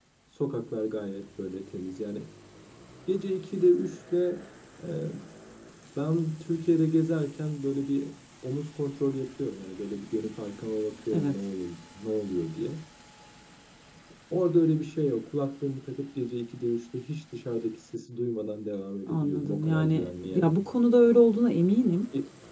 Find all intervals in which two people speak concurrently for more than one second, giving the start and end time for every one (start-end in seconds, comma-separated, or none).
19.1-20.5